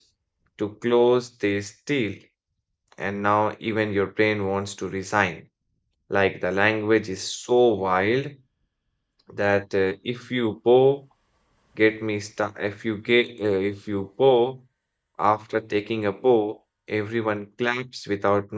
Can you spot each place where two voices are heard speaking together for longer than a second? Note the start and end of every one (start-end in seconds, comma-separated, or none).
none